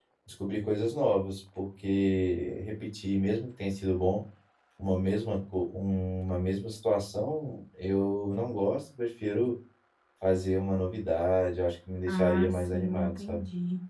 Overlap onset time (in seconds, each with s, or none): 12.1 s